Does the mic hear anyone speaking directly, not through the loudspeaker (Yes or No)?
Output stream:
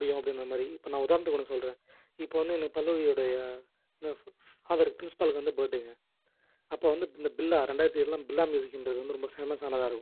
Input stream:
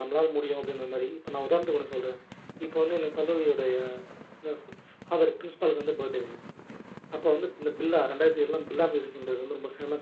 No